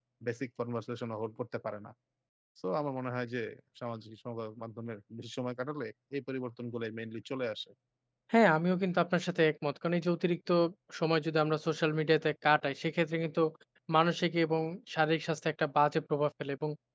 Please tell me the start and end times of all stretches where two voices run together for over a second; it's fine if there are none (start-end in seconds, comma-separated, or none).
none